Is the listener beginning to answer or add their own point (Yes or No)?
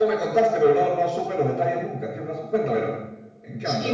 Yes